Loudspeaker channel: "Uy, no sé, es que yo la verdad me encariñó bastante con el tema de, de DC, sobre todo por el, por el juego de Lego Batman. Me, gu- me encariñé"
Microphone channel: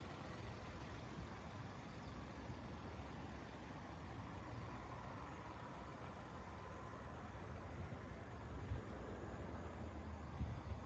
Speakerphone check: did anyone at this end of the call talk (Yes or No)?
No